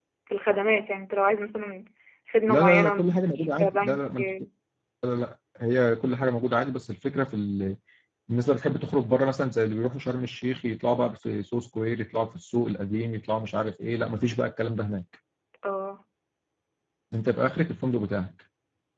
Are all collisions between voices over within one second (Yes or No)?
No